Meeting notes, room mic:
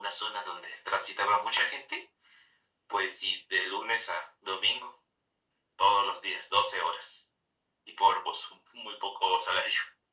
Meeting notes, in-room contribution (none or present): none